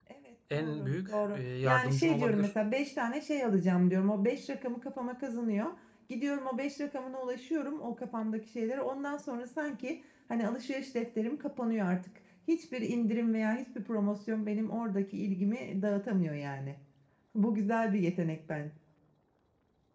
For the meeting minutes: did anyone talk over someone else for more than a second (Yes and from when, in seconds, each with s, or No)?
Yes, from 0.5 s